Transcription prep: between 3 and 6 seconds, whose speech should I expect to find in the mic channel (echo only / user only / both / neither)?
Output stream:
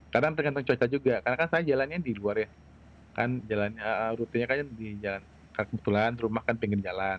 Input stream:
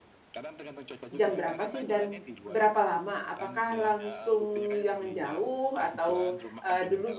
both